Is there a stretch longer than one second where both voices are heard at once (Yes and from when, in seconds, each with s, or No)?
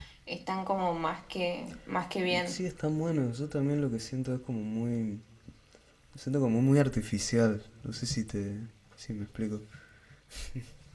No